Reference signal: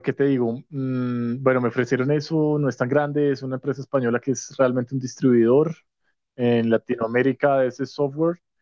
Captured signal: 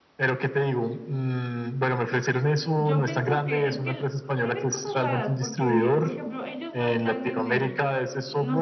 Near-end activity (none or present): present